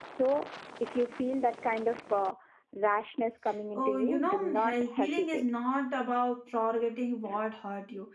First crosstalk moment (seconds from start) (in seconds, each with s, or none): 3.8 s